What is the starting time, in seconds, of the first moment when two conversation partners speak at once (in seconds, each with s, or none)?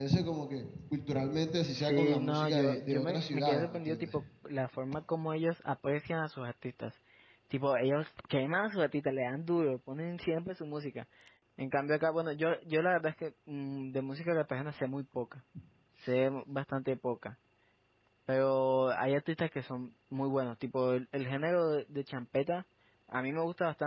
1.8 s